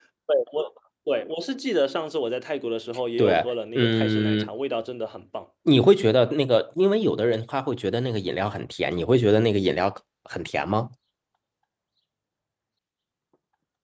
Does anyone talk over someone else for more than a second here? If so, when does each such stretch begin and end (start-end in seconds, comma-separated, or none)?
3.2-4.5